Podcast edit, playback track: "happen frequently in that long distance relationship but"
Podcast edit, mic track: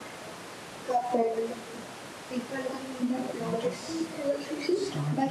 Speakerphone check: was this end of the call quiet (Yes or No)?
No